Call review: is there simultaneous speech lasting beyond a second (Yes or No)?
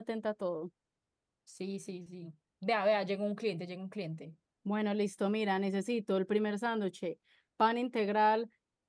No